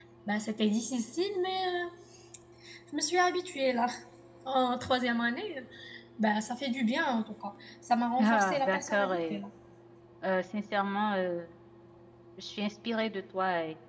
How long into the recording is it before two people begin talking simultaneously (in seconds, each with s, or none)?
8.2 s